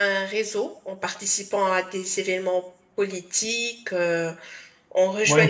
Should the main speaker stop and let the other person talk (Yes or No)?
Yes